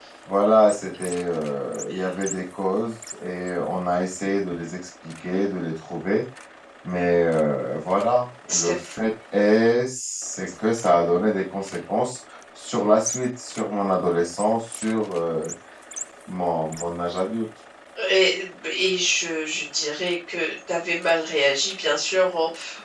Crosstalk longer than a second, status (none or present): none